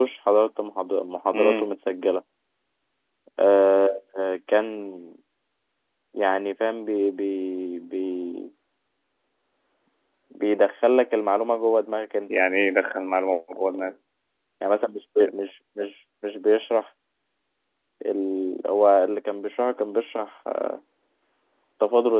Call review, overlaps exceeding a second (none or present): none